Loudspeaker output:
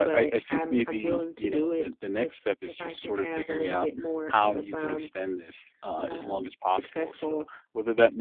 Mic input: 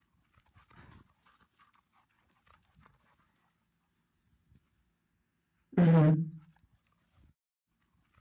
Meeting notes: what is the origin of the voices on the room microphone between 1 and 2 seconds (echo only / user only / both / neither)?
neither